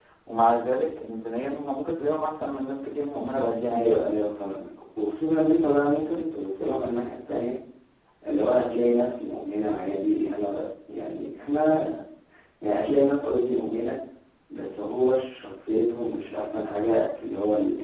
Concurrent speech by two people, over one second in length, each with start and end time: none

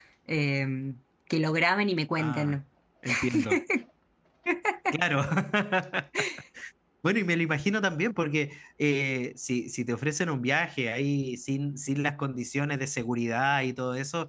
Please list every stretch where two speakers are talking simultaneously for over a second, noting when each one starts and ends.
none

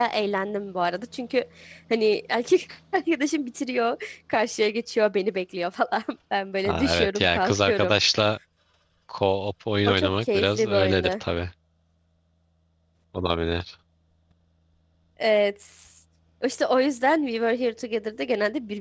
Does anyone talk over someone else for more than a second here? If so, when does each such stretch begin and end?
6.7-7.9, 9.9-11.2

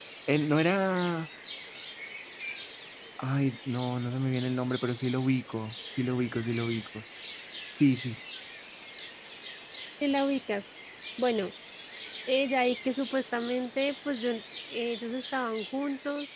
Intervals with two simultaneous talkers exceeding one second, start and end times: none

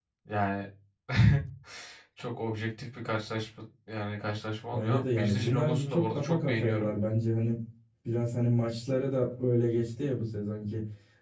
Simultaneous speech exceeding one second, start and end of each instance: 4.7-6.9

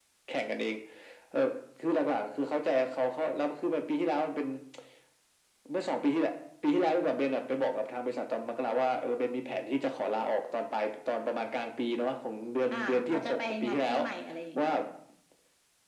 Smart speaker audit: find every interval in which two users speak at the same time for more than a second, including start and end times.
12.7-14.0

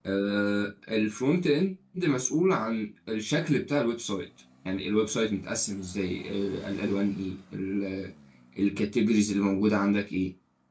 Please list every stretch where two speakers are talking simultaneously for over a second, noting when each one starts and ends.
none

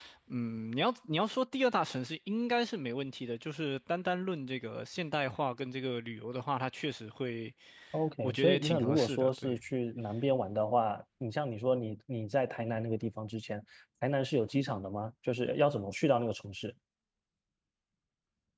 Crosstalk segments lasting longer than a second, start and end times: 8.2-9.6

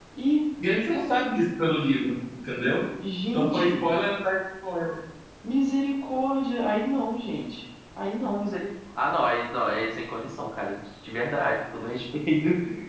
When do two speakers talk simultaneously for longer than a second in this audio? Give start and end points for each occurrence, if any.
none

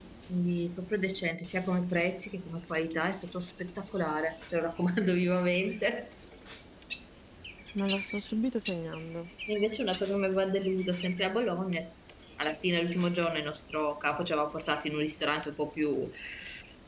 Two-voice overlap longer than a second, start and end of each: none

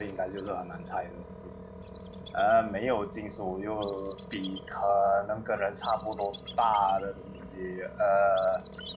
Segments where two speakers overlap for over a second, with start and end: none

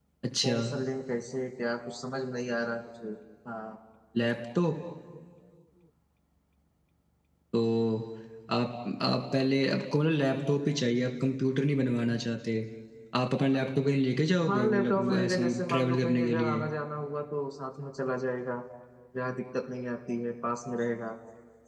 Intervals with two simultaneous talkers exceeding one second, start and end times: 14.5-16.6

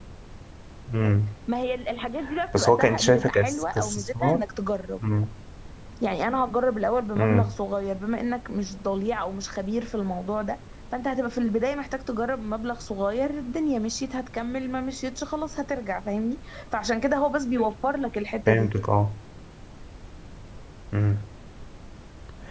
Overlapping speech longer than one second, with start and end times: 2.5-4.4

